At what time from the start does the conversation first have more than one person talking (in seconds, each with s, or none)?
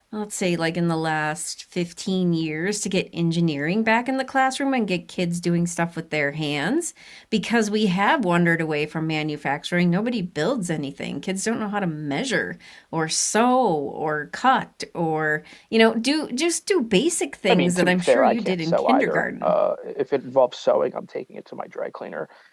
17.5 s